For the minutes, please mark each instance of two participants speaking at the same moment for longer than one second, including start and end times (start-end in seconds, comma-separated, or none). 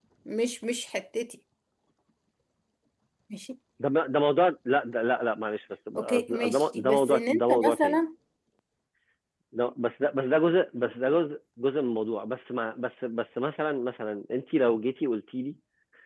6.0-8.0